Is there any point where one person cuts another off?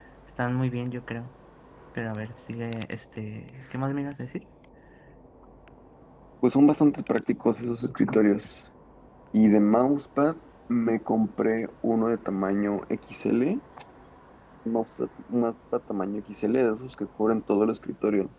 No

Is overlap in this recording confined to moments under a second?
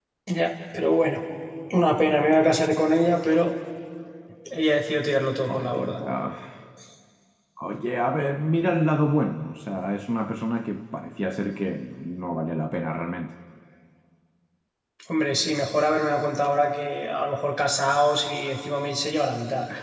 Yes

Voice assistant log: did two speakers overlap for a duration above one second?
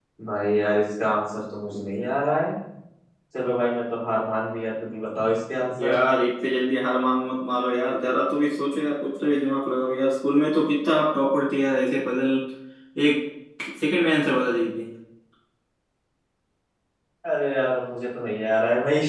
No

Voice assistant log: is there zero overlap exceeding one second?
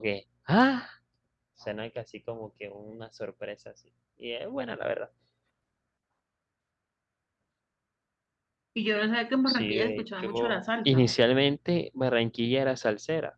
No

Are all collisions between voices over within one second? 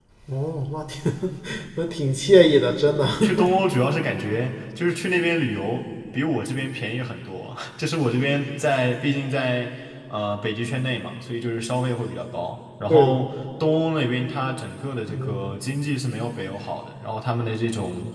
Yes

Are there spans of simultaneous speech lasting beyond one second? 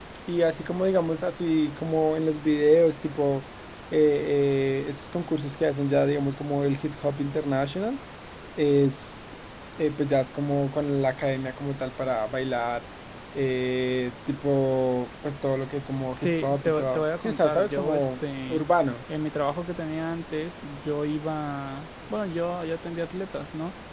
Yes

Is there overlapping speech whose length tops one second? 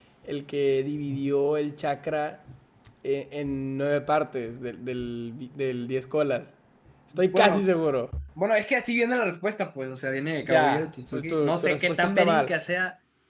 Yes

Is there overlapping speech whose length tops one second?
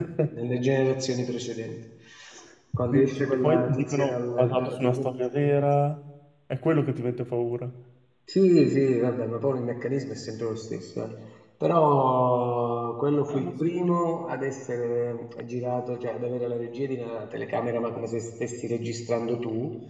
Yes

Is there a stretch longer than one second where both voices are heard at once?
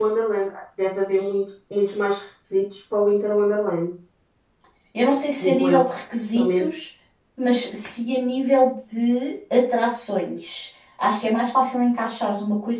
No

